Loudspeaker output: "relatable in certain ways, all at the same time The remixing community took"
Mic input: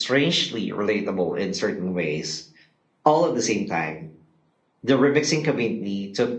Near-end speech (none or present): none